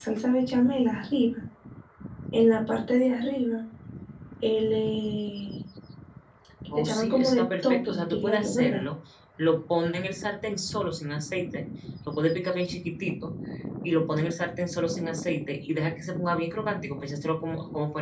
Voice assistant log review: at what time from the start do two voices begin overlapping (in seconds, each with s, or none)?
6.7 s